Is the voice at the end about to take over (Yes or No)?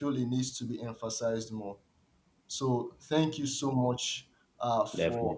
No